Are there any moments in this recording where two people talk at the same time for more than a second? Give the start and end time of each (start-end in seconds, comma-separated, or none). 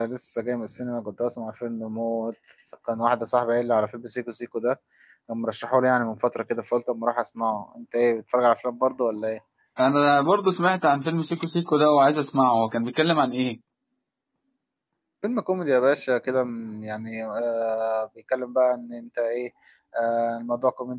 none